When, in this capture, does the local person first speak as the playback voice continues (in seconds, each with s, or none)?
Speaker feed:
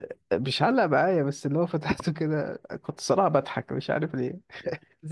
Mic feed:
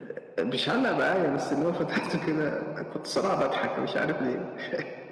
none